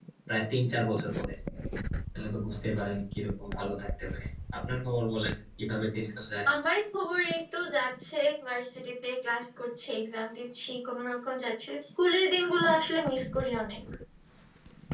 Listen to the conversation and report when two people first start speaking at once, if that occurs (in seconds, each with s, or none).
none